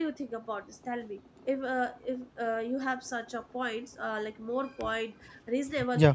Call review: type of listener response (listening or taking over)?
listening